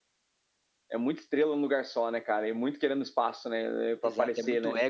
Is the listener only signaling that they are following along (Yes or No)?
No